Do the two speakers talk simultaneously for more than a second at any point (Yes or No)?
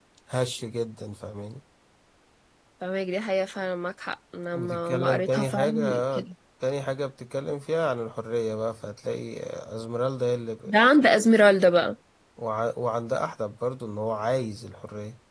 Yes